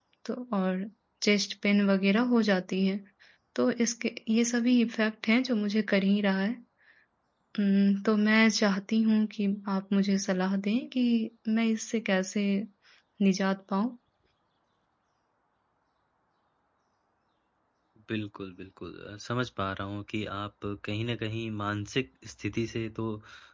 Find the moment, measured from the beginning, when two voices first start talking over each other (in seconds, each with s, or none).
none